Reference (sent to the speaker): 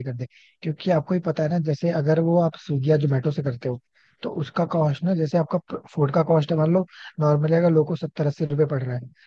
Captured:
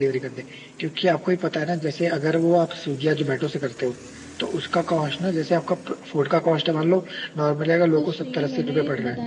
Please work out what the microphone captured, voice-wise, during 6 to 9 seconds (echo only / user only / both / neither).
both